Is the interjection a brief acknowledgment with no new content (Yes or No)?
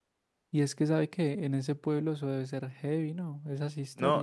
No